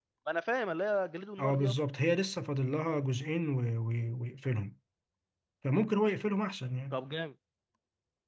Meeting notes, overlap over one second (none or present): none